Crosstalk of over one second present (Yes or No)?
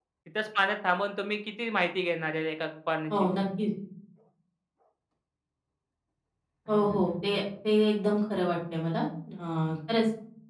No